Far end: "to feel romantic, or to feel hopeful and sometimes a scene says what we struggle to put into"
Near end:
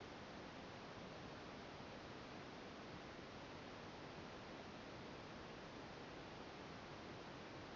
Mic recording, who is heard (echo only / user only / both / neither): neither